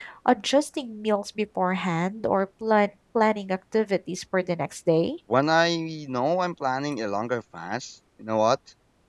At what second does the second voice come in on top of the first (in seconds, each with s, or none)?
none